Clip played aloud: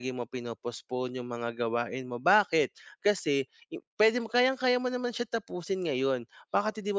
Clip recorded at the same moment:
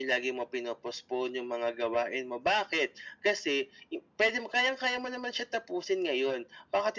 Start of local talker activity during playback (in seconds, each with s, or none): none